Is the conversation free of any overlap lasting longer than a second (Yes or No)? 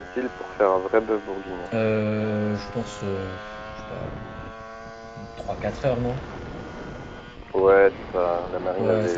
Yes